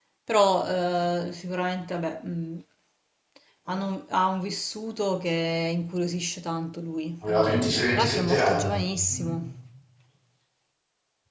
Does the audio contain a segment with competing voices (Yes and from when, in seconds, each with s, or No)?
Yes, from 7.2 s